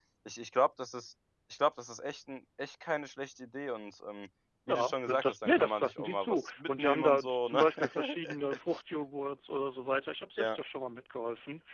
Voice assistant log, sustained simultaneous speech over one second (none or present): present